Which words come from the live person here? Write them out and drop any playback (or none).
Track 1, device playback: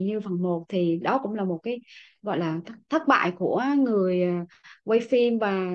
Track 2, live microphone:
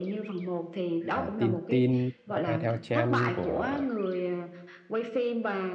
à, tin tin à, theo trend của